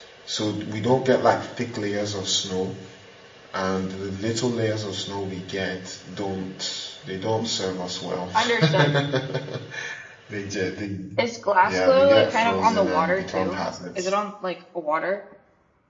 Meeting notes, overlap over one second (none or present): present